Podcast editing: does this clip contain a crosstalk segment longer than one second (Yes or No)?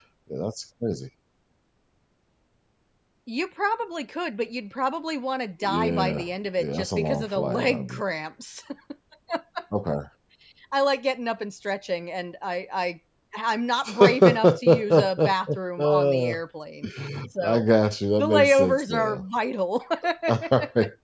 Yes